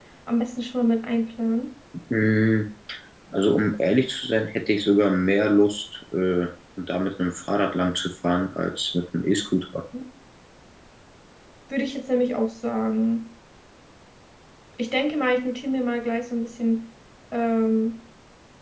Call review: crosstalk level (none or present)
none